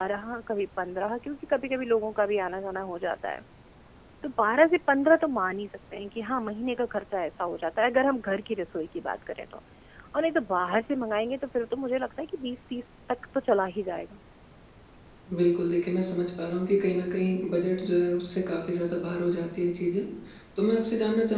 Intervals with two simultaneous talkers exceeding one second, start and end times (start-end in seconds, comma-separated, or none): none